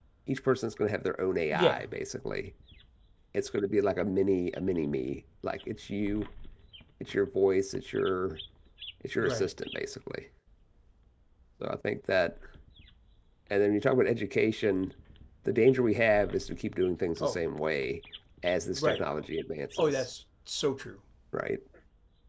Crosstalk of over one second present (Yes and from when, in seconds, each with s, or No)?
No